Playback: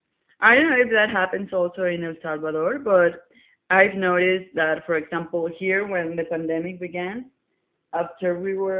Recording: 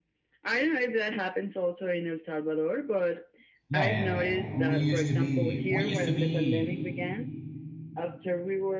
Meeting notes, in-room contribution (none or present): present